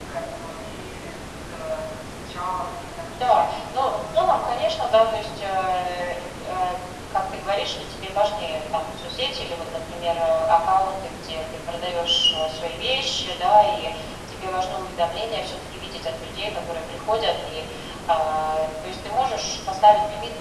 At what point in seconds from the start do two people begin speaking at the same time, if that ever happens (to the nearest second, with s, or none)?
3 s